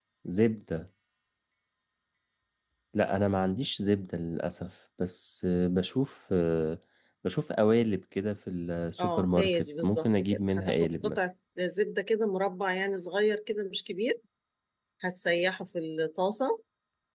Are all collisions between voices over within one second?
No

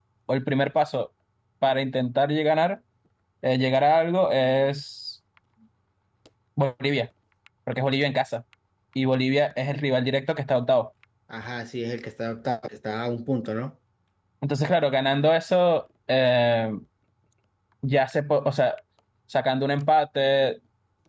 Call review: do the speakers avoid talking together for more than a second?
Yes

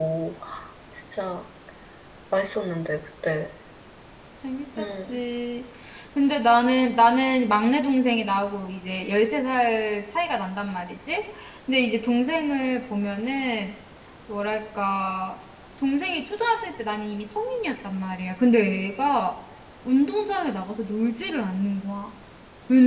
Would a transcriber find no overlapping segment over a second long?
Yes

